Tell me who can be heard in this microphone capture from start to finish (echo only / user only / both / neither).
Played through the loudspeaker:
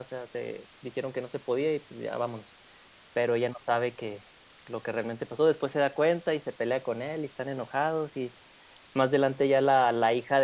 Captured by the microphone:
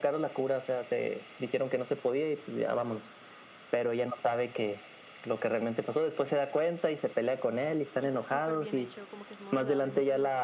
both